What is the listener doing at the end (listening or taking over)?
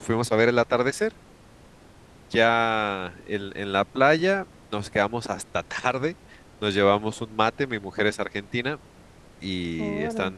listening